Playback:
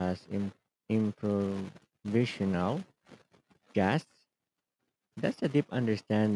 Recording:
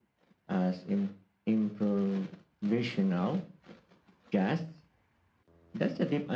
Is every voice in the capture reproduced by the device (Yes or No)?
Yes